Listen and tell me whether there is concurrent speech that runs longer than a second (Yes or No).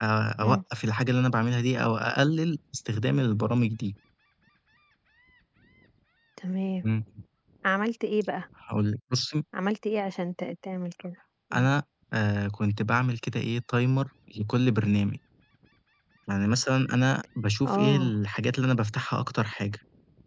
No